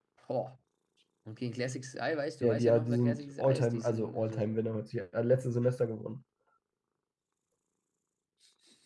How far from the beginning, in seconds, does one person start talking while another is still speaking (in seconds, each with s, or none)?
2.4 s